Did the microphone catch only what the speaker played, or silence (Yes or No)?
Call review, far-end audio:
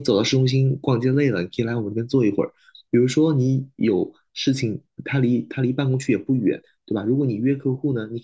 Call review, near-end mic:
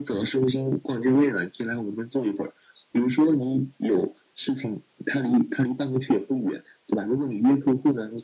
Yes